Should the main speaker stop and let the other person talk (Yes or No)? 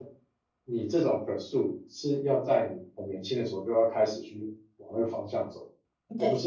No